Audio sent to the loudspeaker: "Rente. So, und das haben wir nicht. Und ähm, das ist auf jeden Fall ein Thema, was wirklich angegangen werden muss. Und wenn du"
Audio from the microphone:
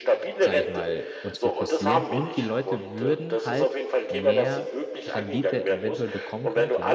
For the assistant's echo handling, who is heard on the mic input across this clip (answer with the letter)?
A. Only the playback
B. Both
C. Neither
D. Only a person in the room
B